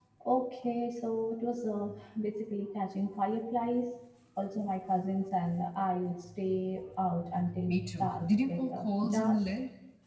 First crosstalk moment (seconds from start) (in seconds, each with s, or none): 7.7 s